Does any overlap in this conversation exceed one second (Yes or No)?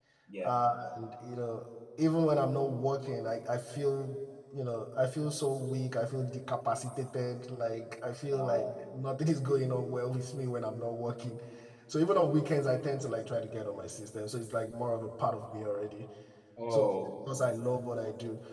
No